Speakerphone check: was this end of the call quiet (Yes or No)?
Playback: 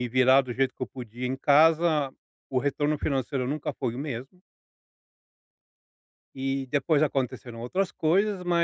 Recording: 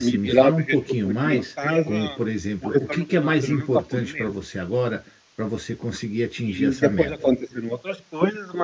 No